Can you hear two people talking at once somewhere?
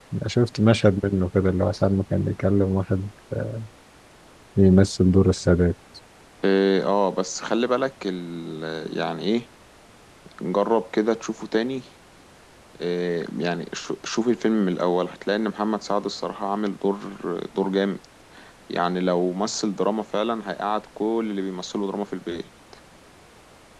No

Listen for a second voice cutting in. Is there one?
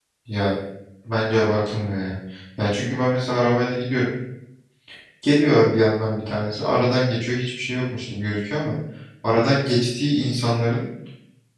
No

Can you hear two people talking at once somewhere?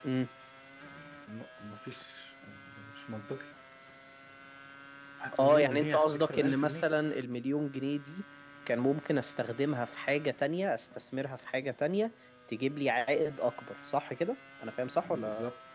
Yes, from 5.4 s

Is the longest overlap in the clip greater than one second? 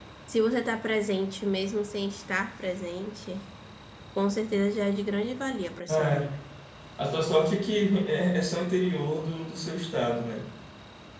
No

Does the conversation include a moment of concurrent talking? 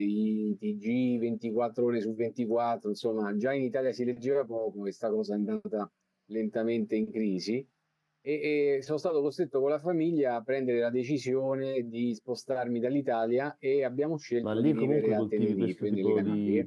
Yes, from 14.4 s

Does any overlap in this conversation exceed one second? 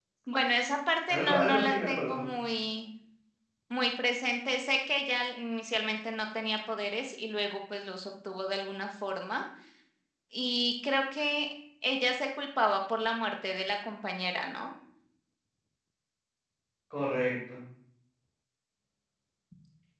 Yes, from 1.1 s

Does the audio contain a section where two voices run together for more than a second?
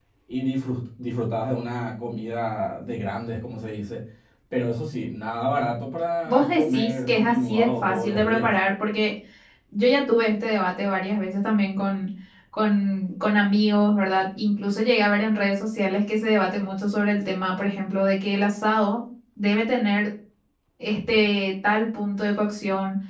Yes, from 6.3 s

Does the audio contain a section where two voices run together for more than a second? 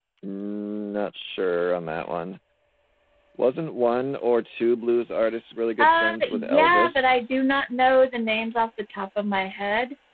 Yes, from 5.8 s

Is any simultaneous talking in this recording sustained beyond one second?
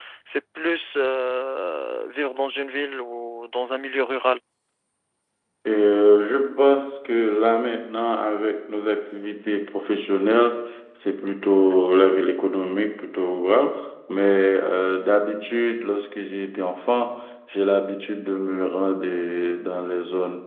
No

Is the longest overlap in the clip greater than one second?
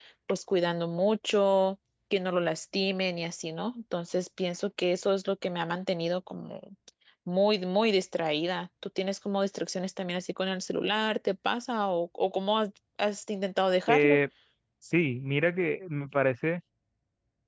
No

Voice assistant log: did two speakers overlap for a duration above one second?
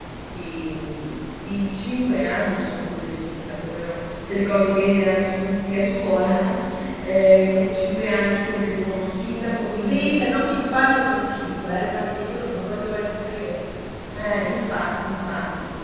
No

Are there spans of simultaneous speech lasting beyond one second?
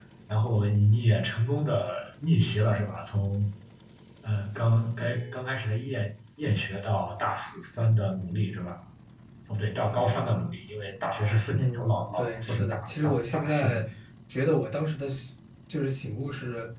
Yes, from 11.5 s

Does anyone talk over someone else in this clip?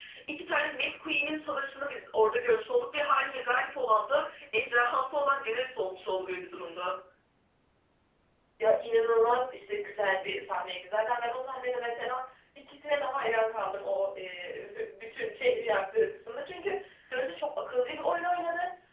No

